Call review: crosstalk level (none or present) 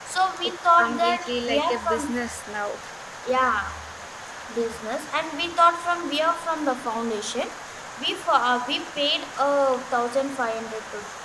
present